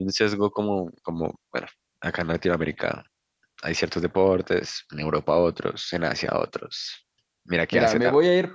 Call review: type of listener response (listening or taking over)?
taking over